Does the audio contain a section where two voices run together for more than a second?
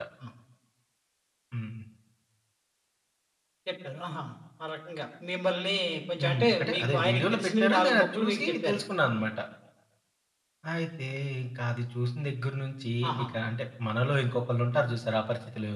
Yes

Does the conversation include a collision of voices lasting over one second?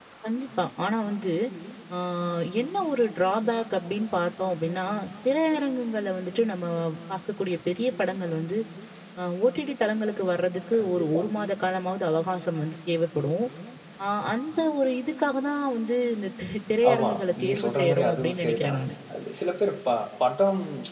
Yes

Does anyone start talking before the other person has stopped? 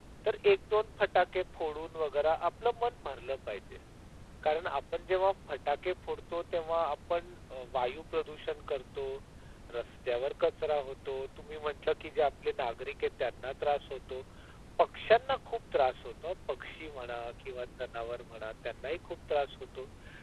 No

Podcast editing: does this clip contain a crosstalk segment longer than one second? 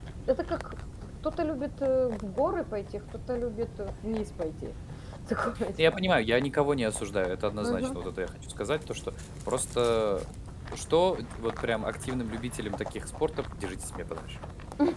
No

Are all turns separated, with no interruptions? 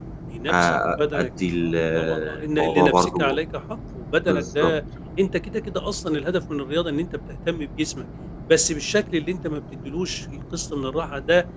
No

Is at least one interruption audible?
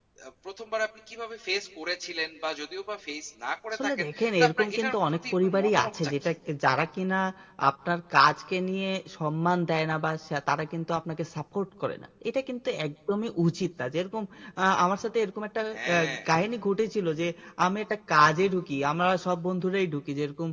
Yes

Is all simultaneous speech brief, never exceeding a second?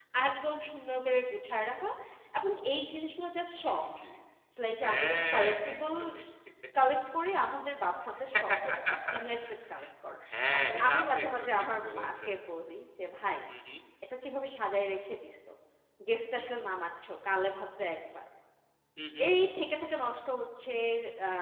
No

